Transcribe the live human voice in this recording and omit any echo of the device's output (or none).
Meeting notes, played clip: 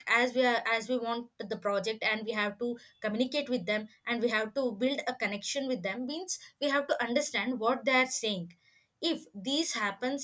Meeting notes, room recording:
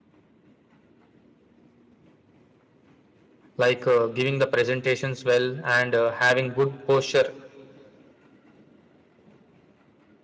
like uh, giving the presentations well and uh, having good posture